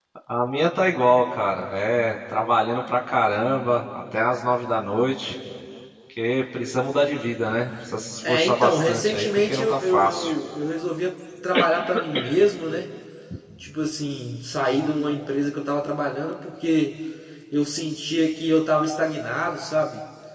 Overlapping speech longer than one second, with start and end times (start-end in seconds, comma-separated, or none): 8.3-10.3